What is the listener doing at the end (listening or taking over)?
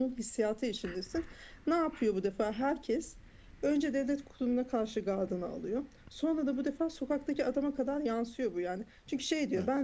listening